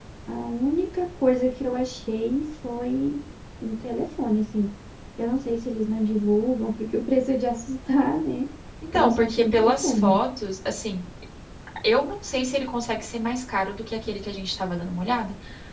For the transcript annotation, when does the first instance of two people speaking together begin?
8.9 s

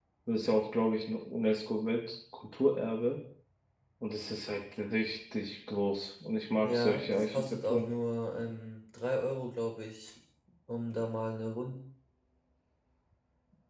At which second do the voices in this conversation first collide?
6.6 s

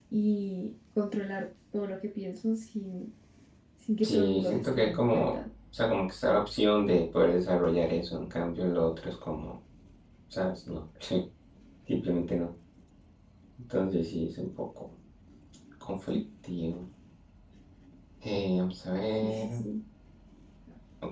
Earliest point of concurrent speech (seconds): 4.0 s

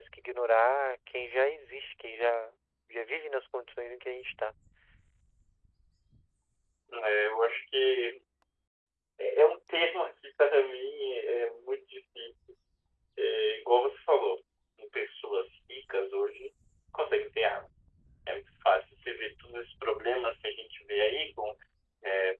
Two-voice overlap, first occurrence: none

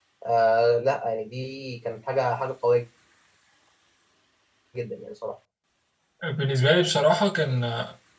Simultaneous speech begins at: none

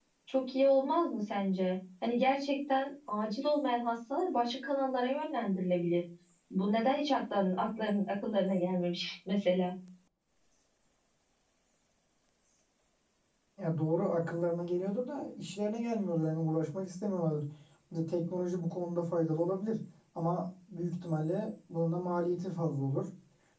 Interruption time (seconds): none

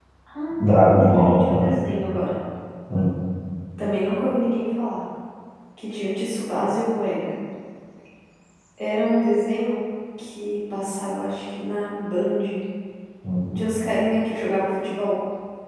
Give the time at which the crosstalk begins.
0.6 s

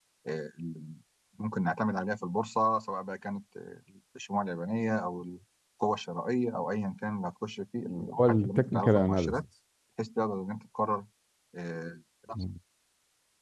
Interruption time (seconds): 8.0 s

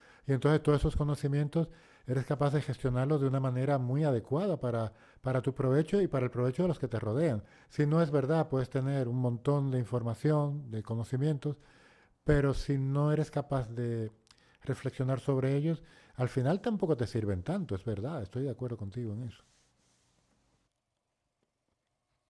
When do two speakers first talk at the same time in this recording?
none

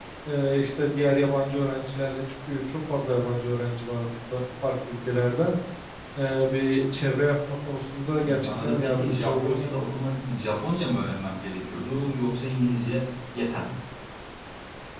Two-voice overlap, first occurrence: 8.2 s

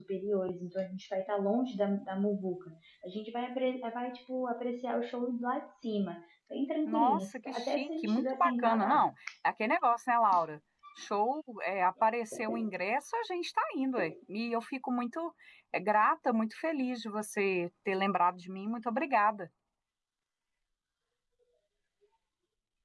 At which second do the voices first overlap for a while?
6.8 s

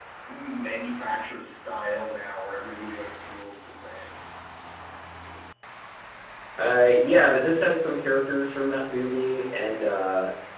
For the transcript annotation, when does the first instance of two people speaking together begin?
none

